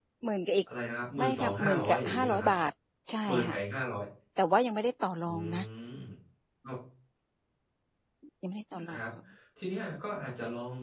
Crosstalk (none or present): present